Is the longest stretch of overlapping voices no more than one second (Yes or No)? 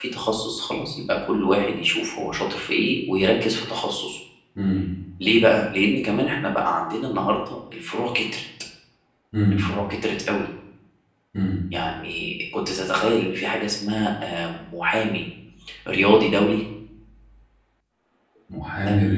Yes